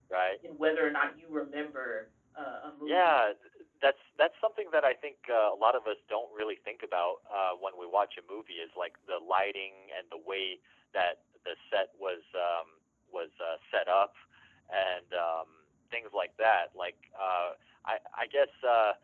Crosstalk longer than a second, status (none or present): none